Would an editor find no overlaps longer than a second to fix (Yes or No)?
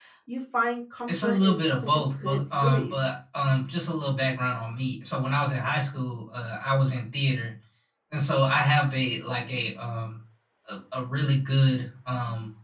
No